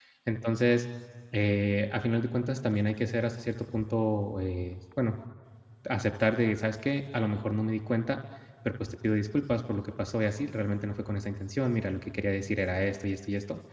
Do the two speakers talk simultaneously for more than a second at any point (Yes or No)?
No